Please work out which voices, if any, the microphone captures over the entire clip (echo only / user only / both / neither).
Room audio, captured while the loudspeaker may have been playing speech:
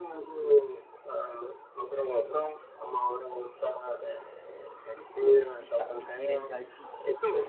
both